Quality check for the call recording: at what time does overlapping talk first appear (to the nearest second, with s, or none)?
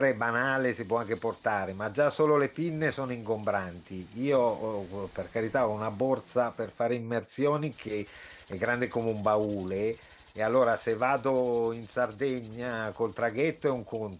none